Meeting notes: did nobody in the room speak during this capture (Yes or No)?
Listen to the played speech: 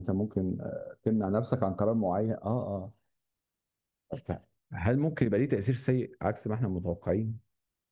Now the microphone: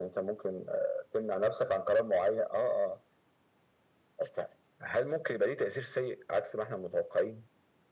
Yes